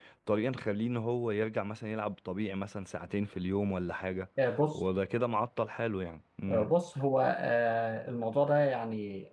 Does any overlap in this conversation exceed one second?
No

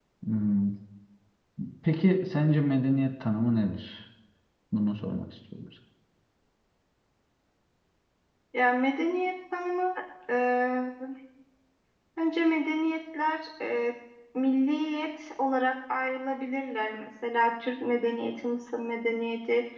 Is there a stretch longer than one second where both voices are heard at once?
No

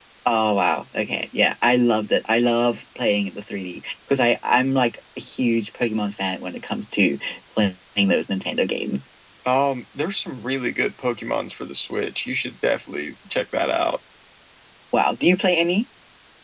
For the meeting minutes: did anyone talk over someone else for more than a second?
No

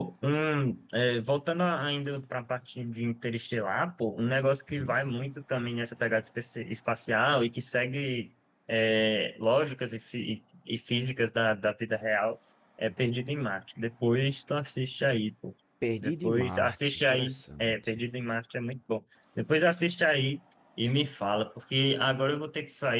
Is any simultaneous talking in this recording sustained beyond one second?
Yes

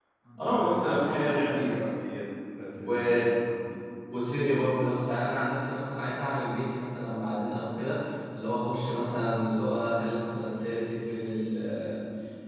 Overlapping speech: Yes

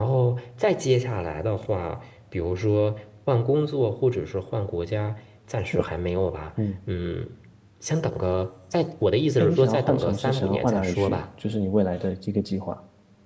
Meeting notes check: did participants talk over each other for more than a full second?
Yes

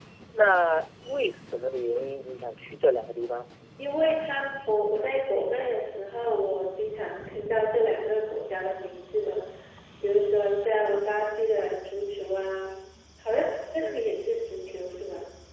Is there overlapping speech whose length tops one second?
No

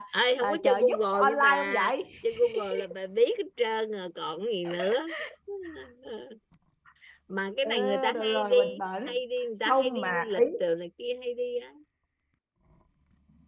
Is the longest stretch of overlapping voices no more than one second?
No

